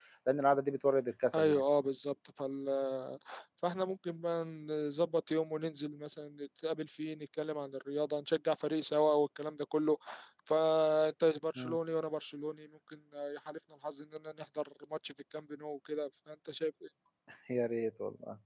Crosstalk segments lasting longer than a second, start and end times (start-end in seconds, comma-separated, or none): none